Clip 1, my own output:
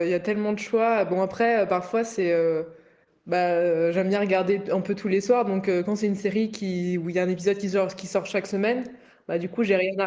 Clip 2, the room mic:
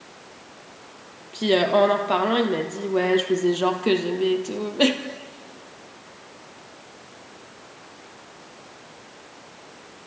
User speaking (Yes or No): Yes